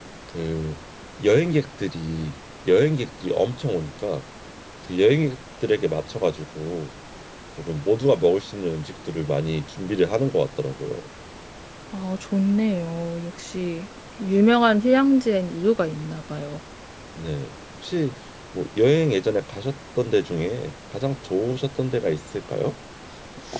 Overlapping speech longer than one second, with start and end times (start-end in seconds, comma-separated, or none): none